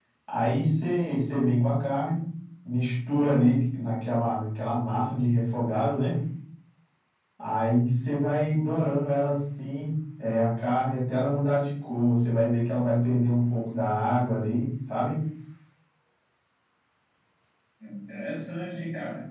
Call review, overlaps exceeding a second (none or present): none